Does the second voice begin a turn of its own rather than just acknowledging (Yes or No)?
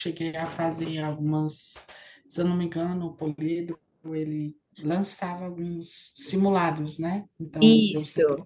No